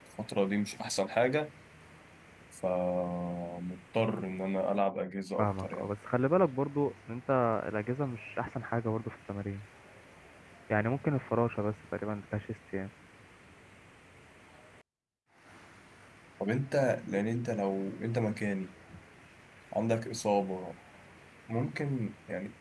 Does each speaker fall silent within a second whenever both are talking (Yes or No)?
Yes